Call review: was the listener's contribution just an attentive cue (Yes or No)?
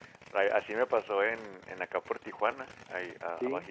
Yes